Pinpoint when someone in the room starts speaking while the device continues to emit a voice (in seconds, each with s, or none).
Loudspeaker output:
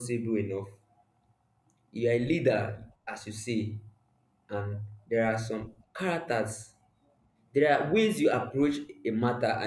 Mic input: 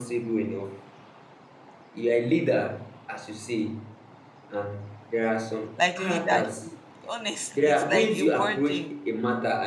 5.8 s